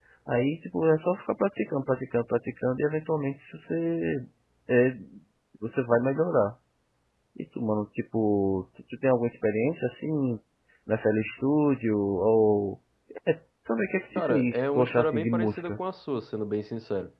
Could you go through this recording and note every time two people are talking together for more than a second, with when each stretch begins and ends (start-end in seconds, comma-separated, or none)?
14.2-15.8